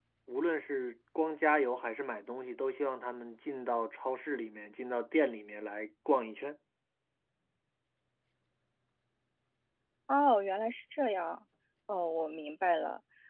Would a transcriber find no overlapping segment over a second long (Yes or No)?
Yes